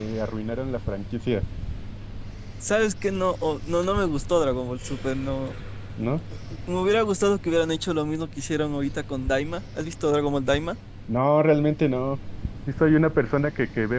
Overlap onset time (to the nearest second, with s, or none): none